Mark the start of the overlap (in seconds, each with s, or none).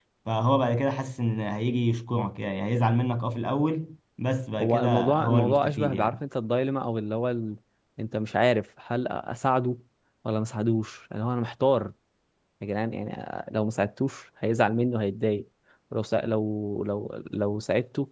4.6 s